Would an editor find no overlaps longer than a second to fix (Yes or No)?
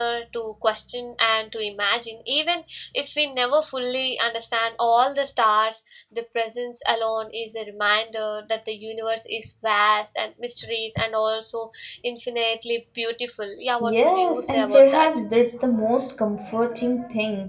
No